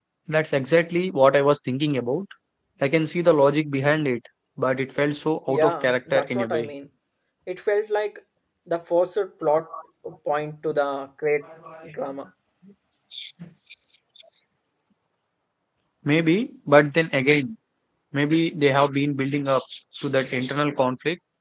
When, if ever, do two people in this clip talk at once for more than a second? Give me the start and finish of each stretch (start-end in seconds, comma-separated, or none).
5.5-6.7